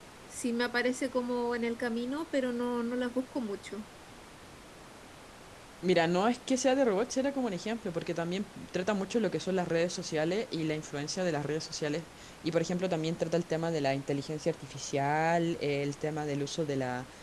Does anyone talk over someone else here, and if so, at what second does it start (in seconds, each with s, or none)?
none